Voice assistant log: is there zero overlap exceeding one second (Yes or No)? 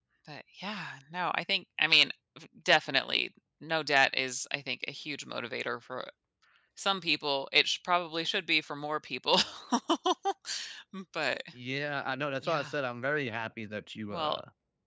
Yes